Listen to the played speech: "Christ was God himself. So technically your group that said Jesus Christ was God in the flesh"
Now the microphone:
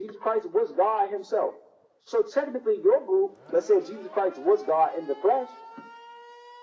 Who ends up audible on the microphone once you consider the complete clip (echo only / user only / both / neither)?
echo only